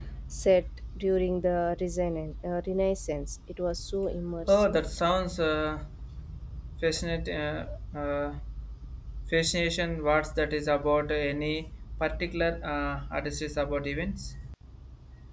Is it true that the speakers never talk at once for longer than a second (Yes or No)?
Yes